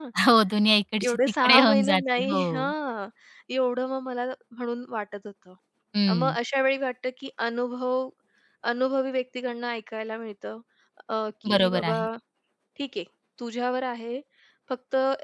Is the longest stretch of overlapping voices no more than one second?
No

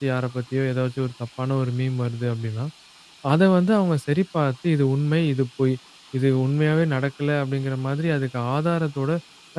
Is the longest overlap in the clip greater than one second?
No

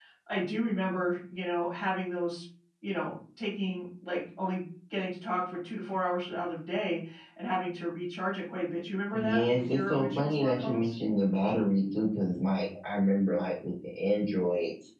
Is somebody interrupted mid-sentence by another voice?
Yes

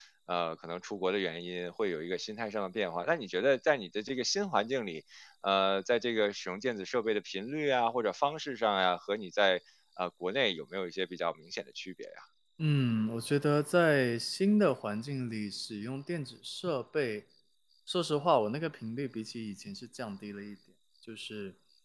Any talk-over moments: No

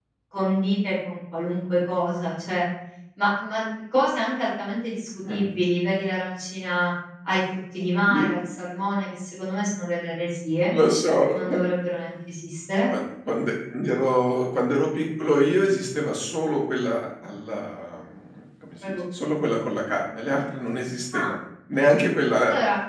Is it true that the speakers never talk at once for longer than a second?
Yes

